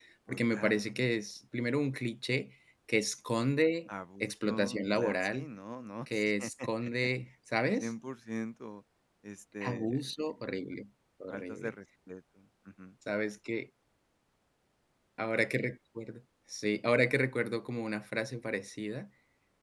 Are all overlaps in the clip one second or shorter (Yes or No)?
No